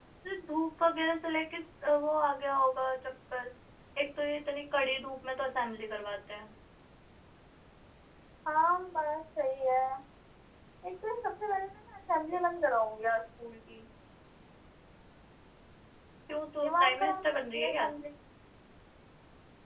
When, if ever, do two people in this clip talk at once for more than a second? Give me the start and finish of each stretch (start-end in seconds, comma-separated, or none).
16.6-17.9